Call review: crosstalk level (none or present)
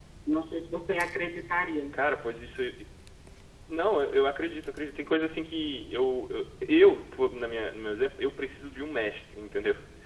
none